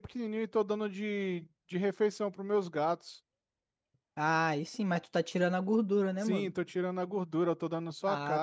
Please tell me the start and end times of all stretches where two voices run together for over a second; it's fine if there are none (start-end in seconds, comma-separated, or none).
none